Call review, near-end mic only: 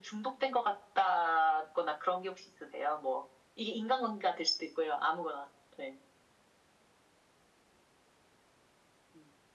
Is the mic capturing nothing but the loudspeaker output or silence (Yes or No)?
Yes